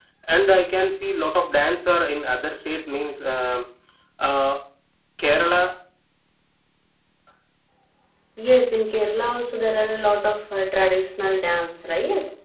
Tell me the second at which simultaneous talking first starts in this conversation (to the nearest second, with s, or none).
none